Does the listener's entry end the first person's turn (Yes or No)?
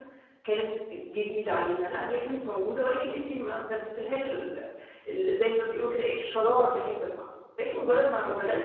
No